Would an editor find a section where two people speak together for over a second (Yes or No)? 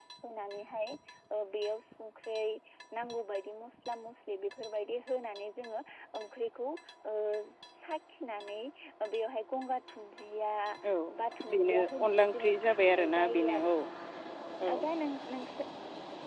Yes